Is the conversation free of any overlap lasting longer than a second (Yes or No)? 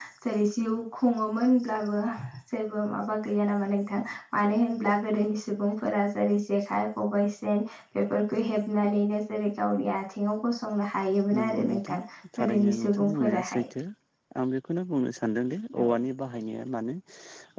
No